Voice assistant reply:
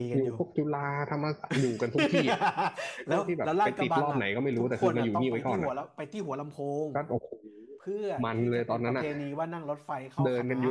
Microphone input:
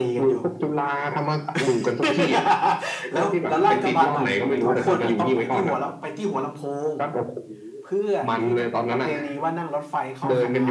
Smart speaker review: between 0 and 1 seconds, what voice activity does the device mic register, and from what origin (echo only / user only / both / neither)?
echo only